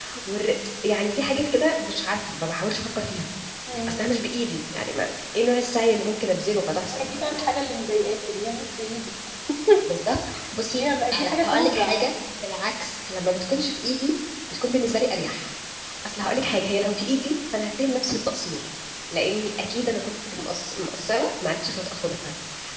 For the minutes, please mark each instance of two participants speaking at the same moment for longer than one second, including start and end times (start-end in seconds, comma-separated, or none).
10.7-12.1